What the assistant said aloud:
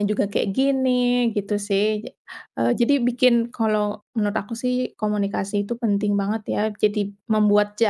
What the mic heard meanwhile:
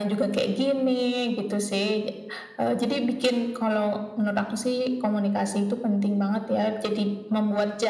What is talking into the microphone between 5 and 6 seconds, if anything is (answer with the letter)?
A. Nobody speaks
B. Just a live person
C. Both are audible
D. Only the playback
D